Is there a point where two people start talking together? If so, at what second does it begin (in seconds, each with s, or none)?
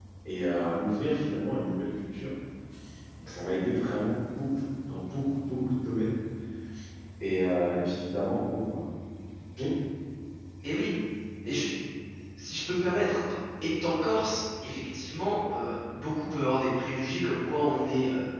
none